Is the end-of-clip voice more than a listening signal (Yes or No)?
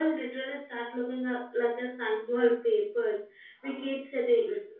No